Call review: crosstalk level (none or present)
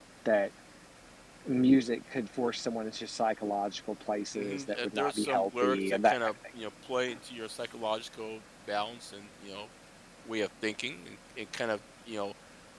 present